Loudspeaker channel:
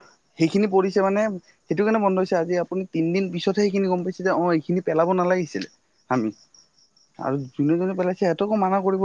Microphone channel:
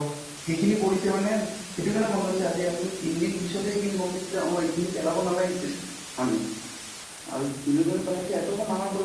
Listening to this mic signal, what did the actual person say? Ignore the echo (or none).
none